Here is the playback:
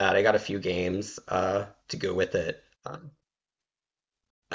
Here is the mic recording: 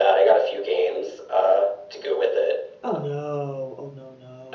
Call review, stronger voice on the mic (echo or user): echo